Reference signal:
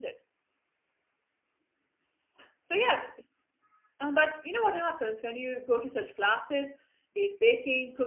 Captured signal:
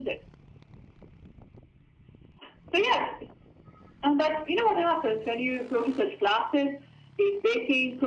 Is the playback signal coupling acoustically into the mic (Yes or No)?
Yes